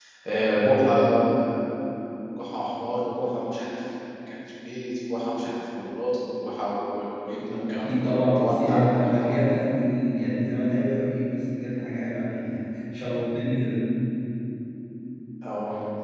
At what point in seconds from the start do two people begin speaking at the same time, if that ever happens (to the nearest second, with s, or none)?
8 s